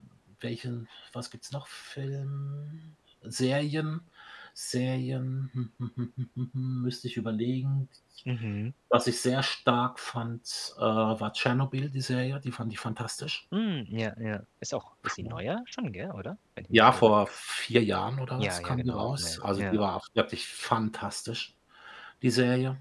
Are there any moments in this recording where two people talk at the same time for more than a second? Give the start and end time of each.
18.4-19.8

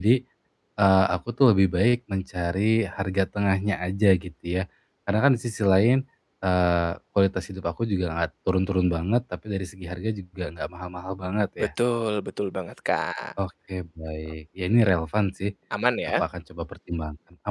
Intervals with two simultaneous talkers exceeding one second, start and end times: none

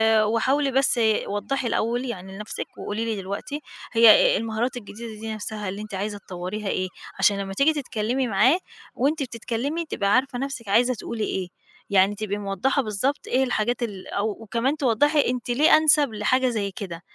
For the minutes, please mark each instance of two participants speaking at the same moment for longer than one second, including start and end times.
none

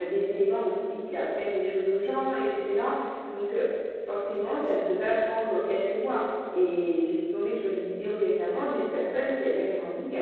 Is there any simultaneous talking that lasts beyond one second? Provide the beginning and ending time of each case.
none

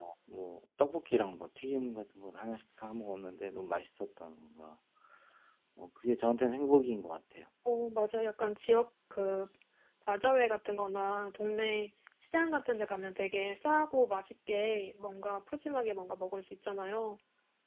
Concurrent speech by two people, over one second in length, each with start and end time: none

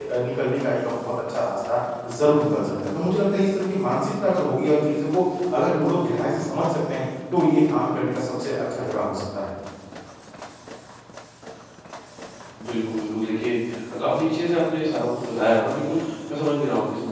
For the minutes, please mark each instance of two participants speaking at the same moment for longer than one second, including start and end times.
none

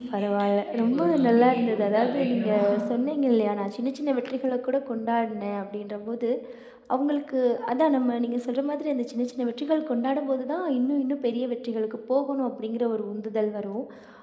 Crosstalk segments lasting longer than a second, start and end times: 0.7-2.5

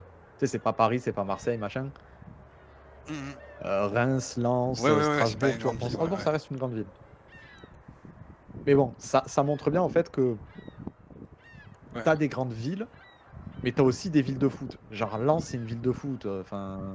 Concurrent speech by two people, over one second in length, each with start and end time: 4.8-6.3

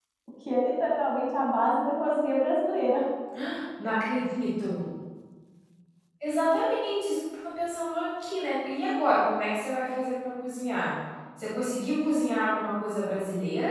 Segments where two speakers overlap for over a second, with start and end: none

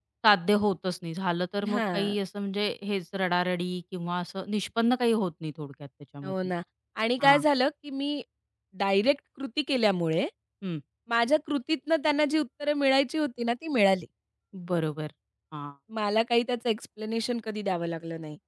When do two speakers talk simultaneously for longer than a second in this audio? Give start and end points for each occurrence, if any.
none

